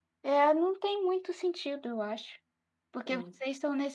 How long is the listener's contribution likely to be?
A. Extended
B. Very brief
B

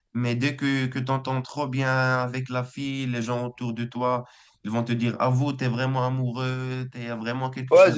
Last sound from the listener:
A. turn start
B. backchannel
A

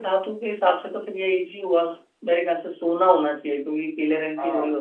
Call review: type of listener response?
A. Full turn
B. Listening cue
A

